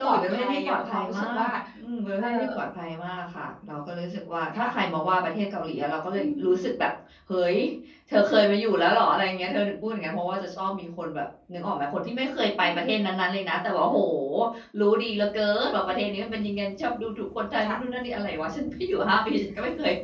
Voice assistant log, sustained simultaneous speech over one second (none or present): present